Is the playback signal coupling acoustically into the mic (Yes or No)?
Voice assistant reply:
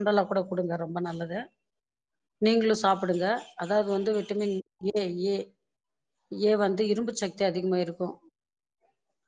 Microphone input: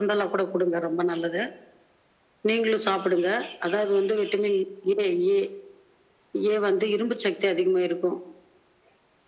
Yes